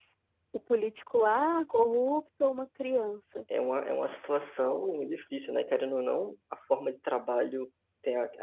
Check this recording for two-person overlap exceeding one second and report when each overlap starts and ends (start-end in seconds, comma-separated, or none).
none